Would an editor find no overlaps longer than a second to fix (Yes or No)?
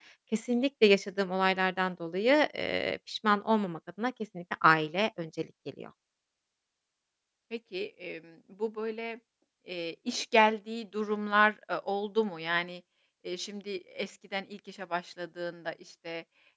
Yes